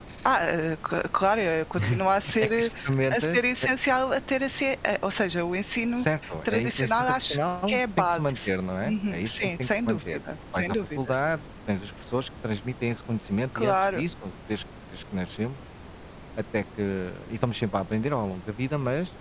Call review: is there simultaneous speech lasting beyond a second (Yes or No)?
Yes